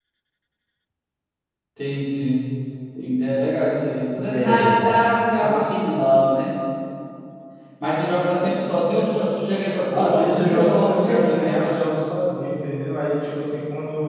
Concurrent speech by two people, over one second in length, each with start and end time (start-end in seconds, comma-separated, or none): 9.9-11.8